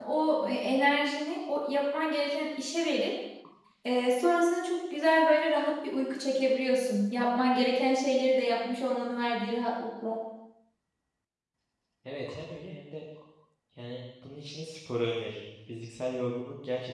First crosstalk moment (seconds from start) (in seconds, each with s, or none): none